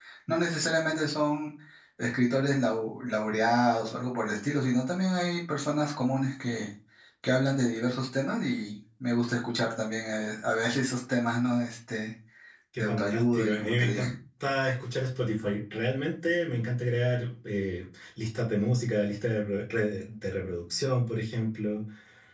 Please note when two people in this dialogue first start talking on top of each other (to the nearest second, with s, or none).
13 s